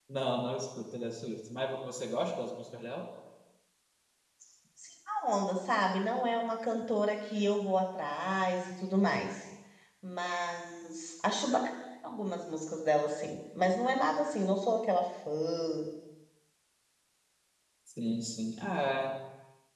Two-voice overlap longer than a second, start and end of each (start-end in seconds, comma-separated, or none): none